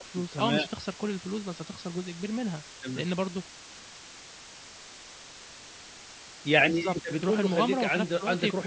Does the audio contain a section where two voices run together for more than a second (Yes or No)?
Yes